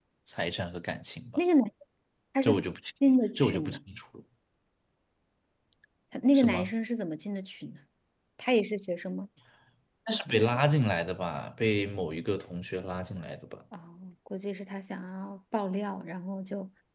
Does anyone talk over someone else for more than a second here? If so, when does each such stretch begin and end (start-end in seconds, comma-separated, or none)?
none